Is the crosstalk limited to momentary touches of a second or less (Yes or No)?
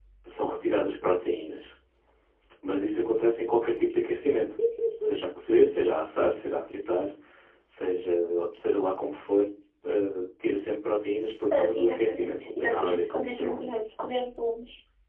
No